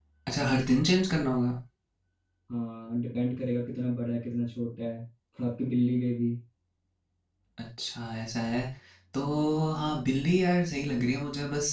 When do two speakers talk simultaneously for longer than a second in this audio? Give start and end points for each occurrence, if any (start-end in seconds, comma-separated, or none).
none